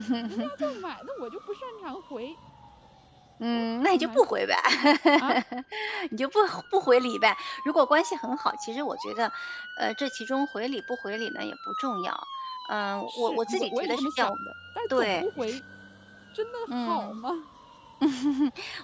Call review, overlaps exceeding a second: present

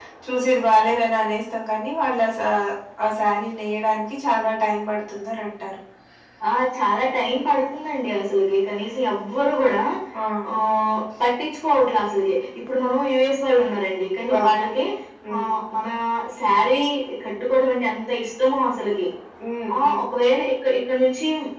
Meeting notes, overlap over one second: none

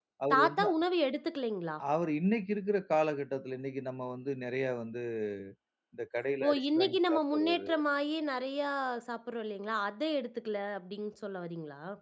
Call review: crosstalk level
present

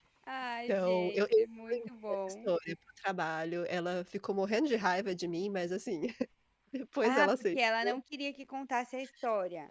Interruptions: present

